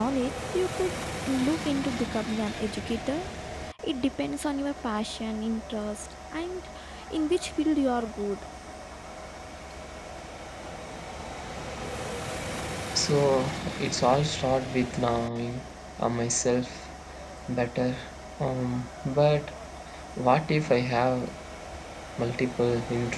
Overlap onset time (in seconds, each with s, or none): none